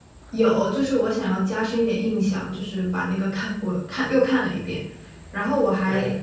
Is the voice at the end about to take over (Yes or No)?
No